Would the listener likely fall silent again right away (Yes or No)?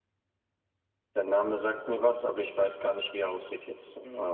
No